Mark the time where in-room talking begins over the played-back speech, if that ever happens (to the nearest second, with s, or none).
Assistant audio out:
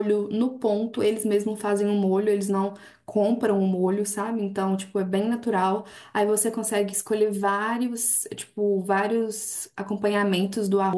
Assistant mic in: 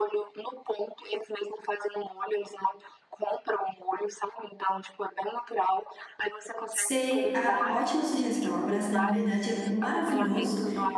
7 s